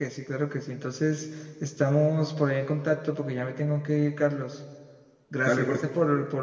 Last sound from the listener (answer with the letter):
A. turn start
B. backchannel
B